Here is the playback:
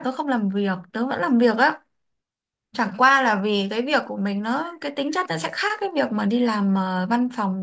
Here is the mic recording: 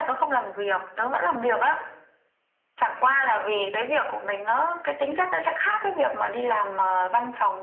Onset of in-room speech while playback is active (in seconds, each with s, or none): none